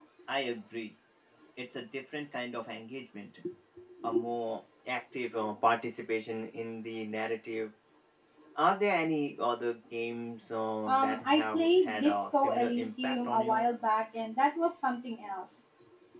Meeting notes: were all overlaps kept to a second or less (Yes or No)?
No